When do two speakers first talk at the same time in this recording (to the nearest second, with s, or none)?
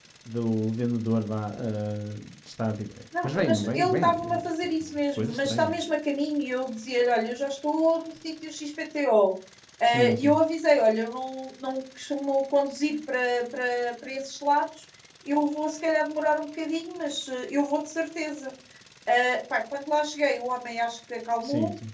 3 s